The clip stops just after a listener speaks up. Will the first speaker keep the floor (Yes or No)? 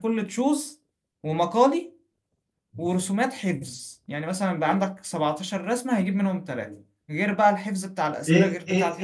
No